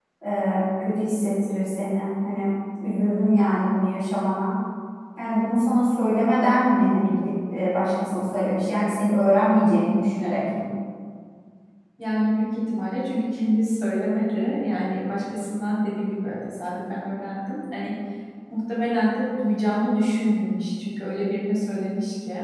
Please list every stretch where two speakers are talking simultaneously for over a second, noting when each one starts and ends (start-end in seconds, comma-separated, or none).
none